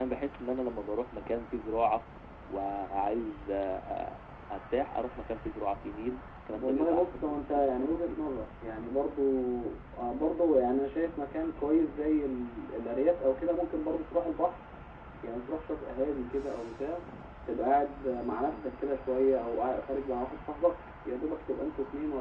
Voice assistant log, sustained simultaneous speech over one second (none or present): present